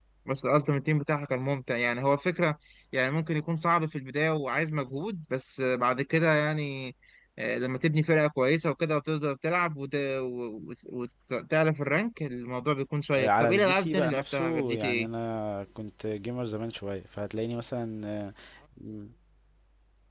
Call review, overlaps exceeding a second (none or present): present